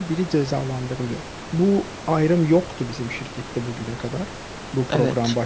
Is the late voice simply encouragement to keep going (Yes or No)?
No